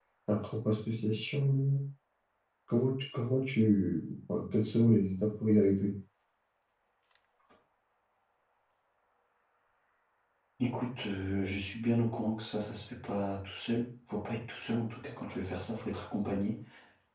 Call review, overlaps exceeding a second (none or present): none